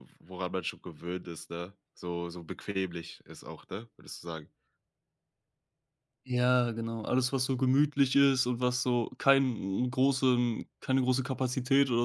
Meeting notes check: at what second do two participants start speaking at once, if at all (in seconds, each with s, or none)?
none